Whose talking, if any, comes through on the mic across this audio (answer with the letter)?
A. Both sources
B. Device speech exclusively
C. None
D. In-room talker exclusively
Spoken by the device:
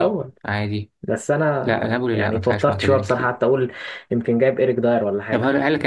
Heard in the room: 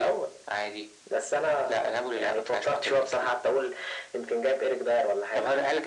B